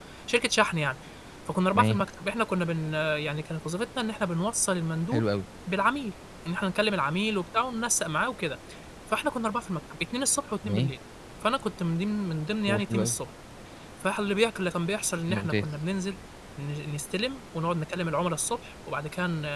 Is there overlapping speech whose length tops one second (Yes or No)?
No